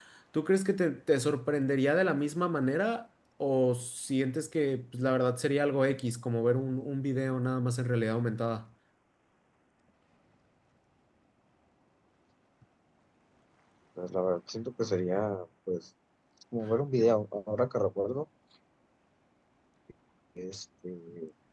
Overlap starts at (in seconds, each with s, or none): none